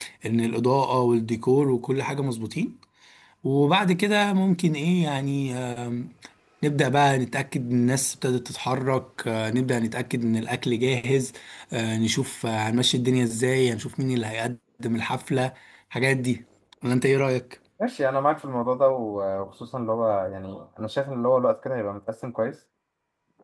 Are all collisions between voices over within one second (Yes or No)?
Yes